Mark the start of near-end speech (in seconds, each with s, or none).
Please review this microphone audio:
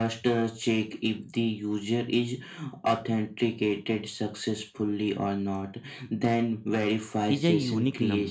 7.3 s